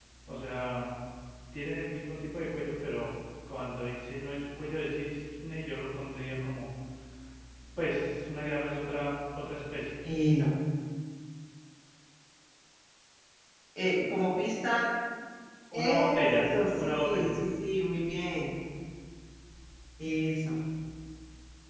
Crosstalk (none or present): present